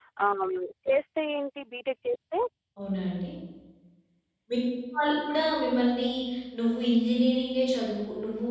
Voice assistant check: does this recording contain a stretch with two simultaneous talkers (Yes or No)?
No